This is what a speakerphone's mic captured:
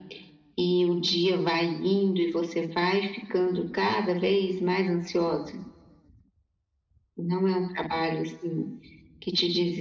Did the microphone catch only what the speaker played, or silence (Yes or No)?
Yes